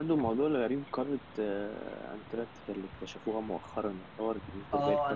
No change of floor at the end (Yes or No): No